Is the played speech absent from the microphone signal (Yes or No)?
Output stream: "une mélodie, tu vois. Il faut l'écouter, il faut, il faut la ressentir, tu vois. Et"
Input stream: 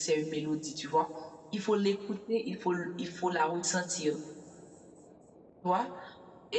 No